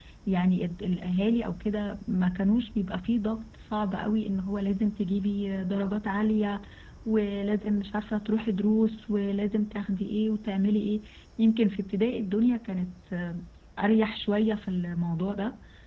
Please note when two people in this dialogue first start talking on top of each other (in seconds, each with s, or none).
none